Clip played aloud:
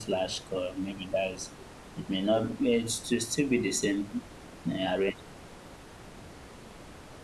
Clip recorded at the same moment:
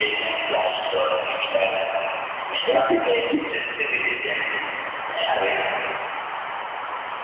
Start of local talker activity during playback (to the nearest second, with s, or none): 3 s